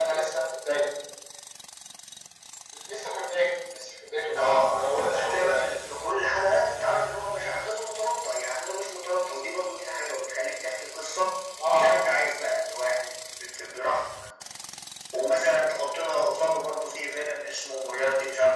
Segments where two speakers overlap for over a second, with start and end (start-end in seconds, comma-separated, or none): 4.4-5.7